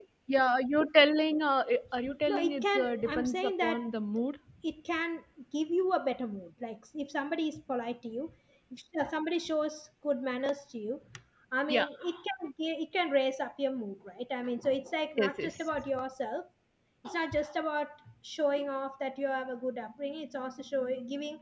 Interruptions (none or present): present